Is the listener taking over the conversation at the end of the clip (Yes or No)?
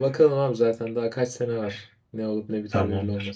Yes